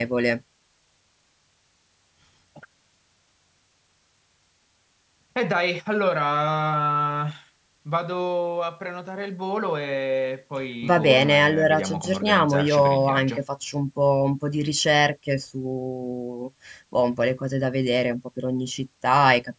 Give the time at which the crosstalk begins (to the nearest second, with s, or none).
11 s